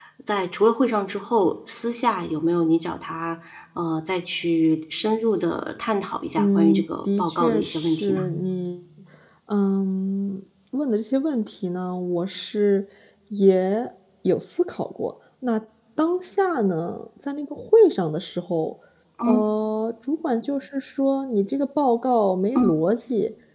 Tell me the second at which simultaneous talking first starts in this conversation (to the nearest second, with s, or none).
6 s